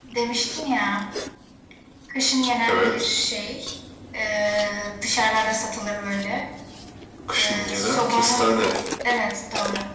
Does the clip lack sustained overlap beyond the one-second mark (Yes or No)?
No